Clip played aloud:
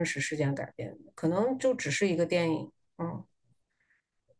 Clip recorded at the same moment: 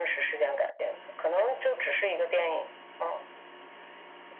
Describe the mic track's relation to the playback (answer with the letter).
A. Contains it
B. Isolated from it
A